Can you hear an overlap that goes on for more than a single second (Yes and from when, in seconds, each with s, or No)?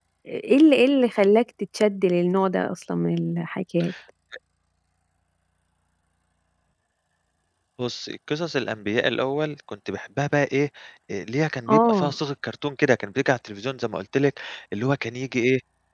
No